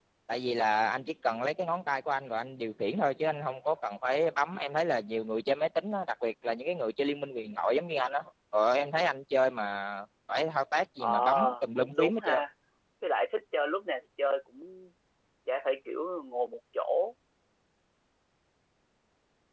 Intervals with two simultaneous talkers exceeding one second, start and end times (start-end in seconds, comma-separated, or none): 11.0-12.4